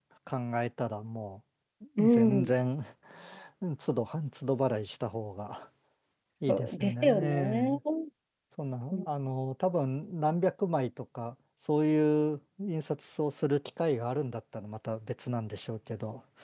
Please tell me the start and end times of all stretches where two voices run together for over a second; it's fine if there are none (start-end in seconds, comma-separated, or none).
6.5-7.8